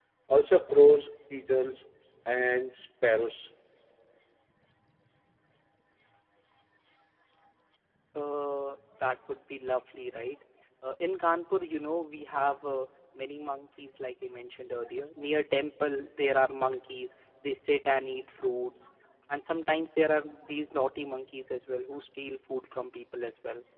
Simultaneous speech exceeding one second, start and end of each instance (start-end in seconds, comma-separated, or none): none